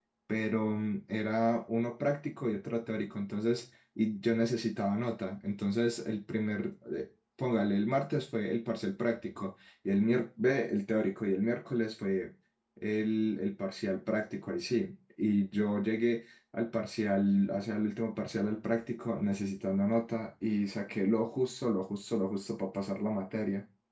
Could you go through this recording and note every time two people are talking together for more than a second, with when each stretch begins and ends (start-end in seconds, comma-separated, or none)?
none